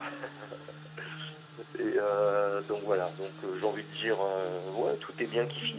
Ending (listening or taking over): listening